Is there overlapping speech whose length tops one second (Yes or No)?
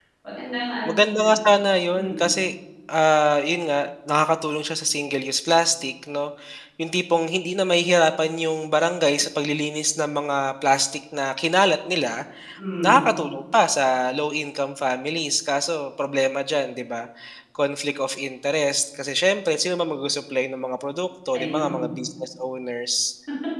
No